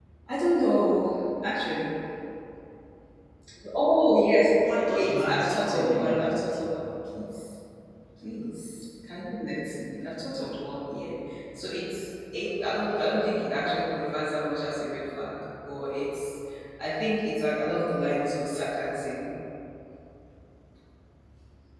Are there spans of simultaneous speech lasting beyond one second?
Yes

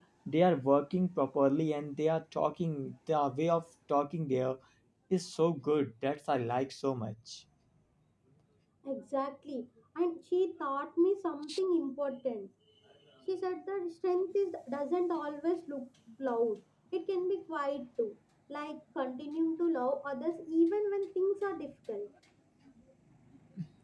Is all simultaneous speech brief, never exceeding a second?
Yes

